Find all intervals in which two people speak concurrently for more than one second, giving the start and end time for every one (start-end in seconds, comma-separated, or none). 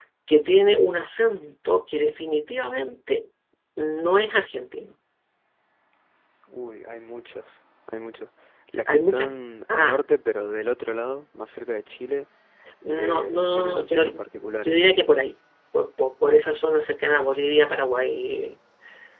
12.9-14.2